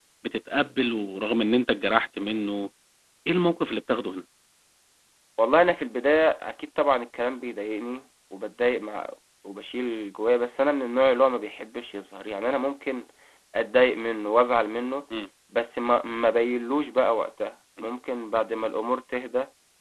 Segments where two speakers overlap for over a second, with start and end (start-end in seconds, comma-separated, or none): none